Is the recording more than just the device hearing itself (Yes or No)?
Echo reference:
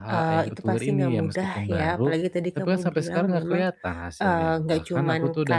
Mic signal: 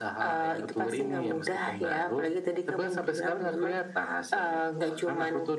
No